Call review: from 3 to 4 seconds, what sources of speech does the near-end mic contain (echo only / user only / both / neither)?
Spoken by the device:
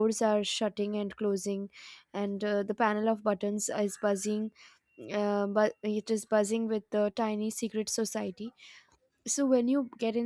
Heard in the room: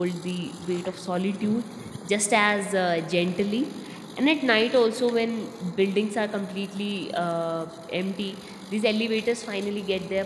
user only